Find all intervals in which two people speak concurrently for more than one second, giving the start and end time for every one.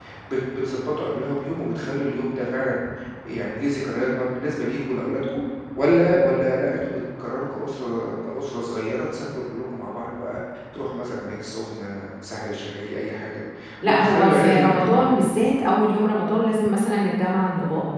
13.8-15.1

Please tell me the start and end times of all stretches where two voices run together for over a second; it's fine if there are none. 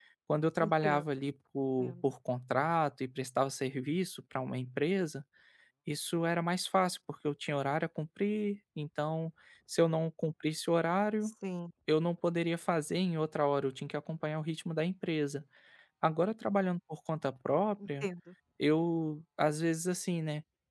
none

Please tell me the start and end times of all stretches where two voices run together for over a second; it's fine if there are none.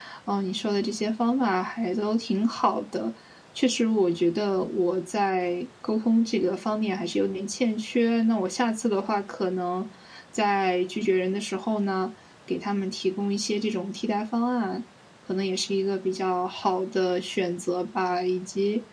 none

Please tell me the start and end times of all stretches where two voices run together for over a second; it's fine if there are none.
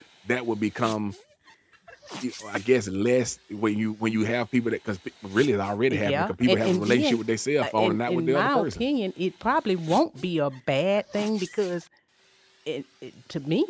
5.9-7.2, 7.6-8.8

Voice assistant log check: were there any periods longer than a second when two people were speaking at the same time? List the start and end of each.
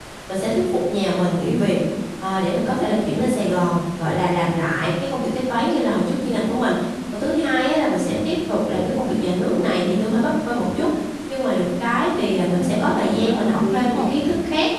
12.5-14.1

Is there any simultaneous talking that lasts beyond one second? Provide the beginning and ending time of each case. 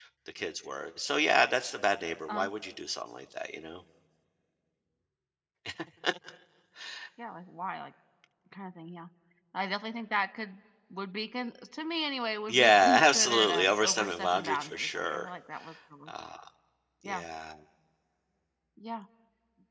12.5-15.3

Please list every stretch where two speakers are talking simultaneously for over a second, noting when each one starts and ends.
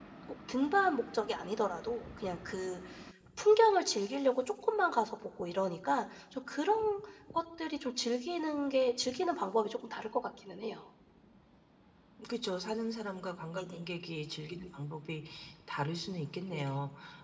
none

